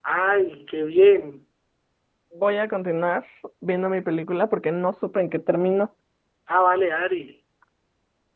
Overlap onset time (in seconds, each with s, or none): none